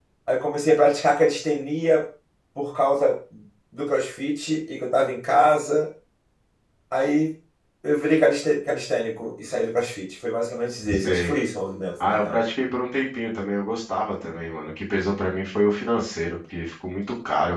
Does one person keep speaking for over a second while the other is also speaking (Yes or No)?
No